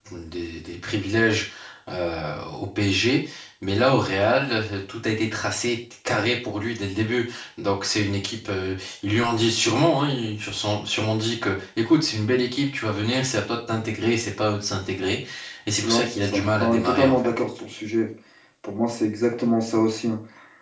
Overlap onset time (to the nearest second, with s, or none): 16 s